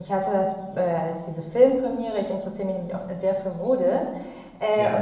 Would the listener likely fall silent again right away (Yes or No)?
Yes